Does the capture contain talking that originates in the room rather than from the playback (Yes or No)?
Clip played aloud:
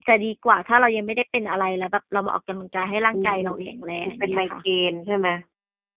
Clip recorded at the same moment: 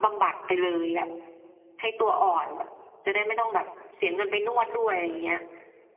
Yes